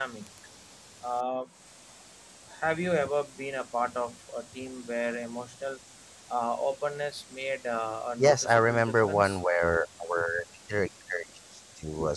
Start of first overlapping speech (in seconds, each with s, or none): 8.2 s